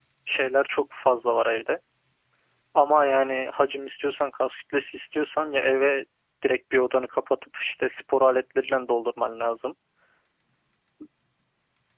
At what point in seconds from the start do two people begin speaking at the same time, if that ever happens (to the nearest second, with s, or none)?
none